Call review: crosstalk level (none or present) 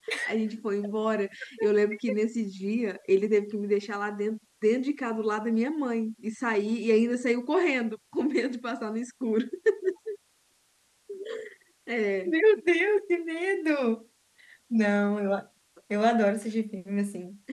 none